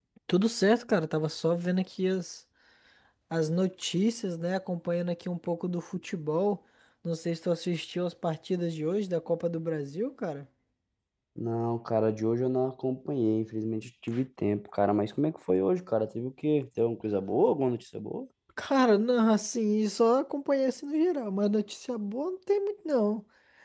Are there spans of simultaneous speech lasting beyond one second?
No

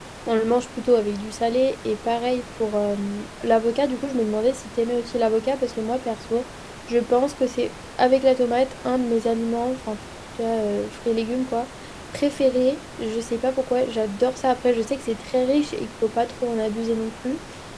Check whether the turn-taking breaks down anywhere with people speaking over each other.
No

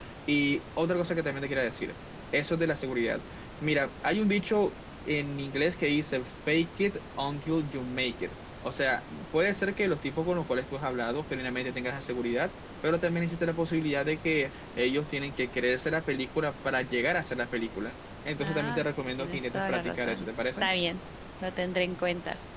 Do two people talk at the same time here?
Yes, from 18.4 s

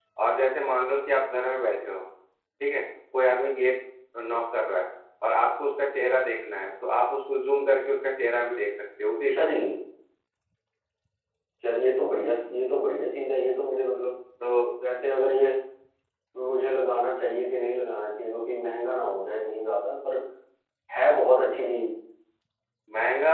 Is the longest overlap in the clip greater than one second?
No

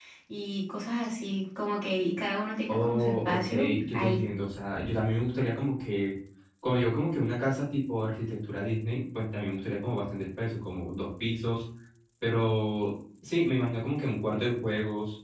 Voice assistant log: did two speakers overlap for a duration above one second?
Yes, from 2.7 s

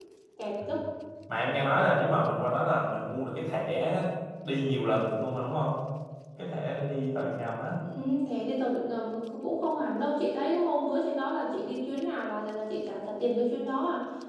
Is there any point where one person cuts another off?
No

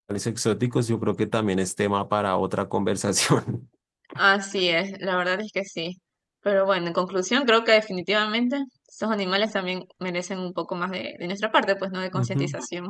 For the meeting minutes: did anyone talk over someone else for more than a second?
No

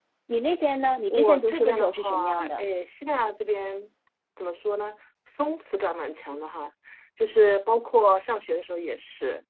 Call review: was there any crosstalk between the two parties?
Yes, from 1.1 s

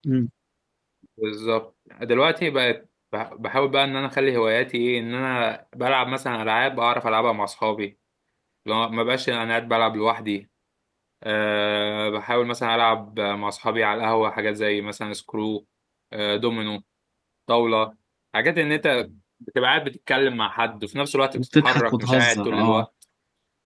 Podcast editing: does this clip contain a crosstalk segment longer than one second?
Yes, from 21.3 s

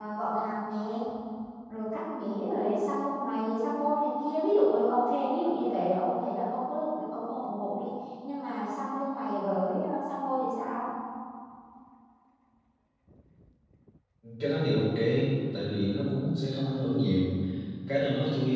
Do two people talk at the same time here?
No

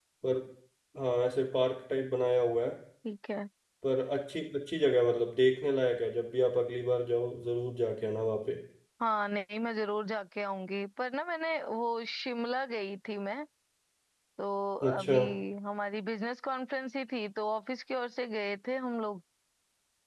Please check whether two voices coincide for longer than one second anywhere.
No

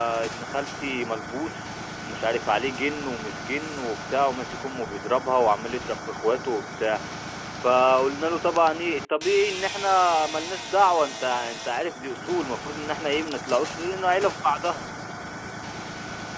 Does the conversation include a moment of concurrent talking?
No

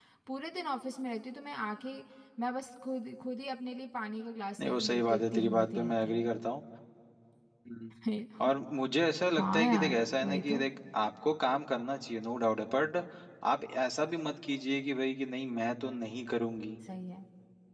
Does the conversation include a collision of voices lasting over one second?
Yes, from 4.6 s

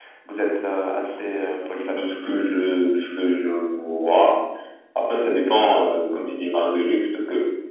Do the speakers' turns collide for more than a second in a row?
No

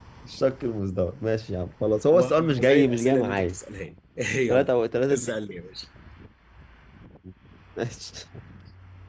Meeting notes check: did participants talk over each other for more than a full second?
Yes, from 2.1 s

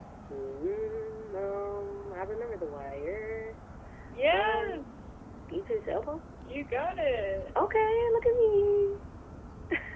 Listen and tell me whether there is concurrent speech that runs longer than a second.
No

